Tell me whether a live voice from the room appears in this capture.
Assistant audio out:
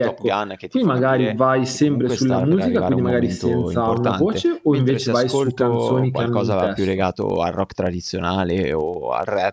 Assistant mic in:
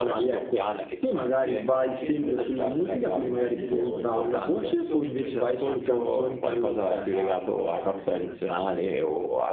Yes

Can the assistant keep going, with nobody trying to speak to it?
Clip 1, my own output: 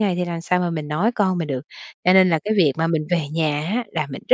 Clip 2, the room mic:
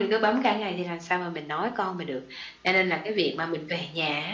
Yes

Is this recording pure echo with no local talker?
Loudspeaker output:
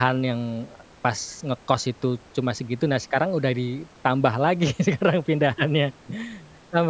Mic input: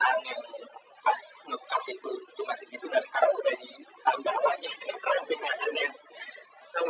Yes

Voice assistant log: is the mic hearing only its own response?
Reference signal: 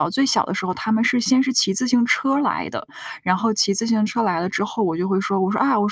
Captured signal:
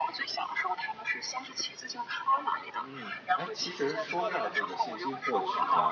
No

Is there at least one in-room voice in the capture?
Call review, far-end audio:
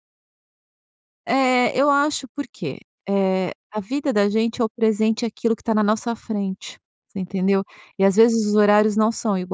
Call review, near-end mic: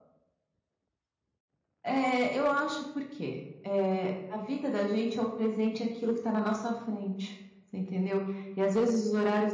No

